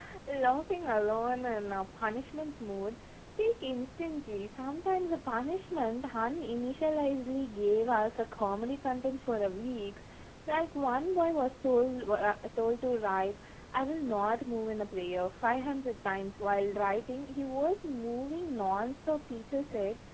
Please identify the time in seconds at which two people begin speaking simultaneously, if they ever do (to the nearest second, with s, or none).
none